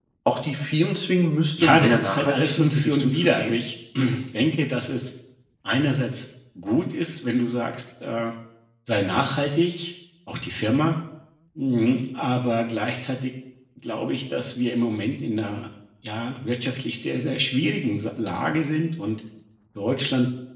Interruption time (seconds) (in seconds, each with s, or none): 1.6 s